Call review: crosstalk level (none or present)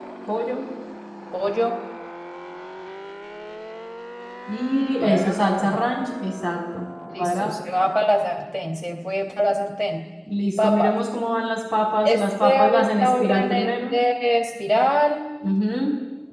present